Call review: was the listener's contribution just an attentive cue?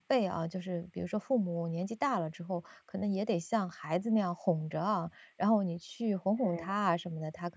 Yes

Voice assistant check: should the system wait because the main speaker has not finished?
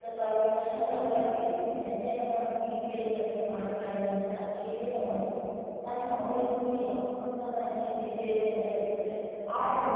No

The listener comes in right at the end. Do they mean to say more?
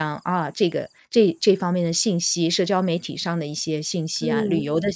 No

